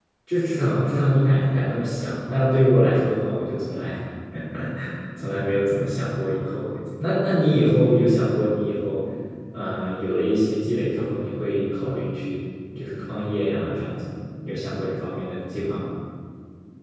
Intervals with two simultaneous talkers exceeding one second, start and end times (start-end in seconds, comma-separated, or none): none